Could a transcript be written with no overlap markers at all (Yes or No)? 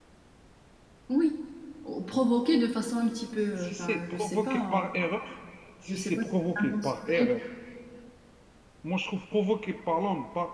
No